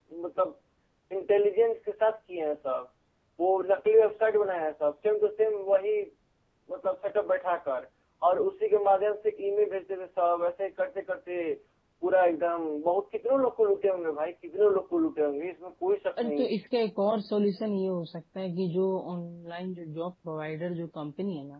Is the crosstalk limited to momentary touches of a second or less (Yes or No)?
Yes